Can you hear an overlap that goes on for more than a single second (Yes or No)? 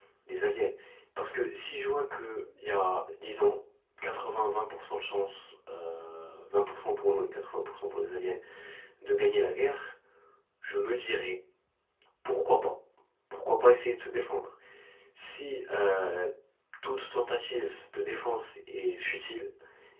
No